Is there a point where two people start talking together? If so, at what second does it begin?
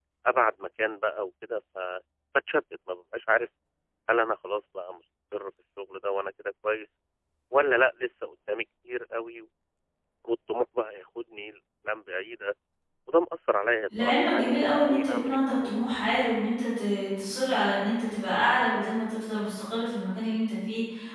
14 s

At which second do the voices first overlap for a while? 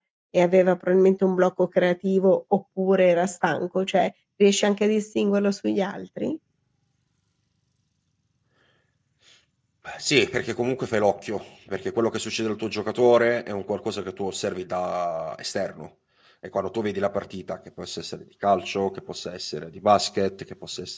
none

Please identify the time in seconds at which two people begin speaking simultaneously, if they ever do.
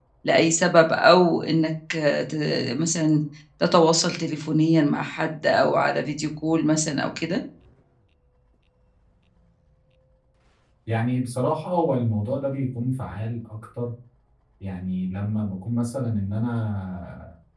none

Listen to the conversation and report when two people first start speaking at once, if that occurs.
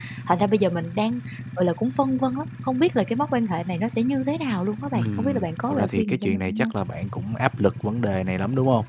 5 s

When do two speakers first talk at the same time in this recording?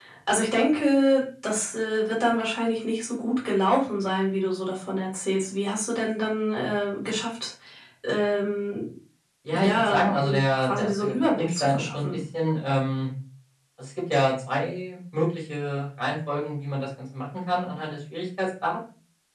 10 s

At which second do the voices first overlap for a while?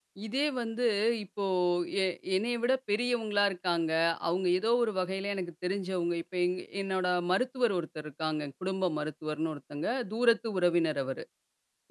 none

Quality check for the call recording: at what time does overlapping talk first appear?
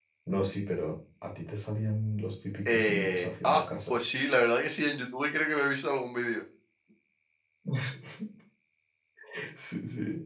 3 s

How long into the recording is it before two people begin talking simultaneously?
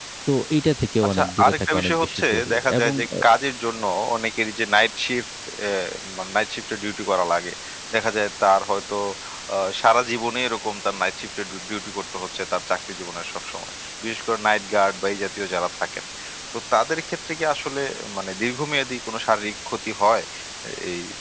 1 s

